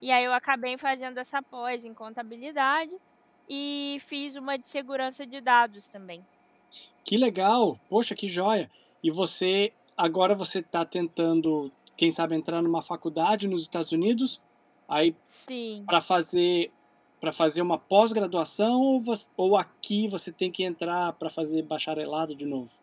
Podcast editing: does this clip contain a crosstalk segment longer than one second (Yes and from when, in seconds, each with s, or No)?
No